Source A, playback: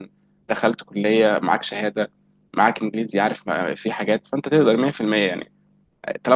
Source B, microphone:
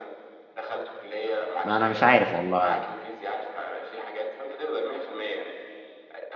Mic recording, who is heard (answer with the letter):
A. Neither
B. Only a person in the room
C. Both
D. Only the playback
C